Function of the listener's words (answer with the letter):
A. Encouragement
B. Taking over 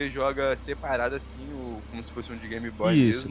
B